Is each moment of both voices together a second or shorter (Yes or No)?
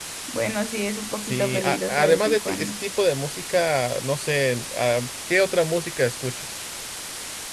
No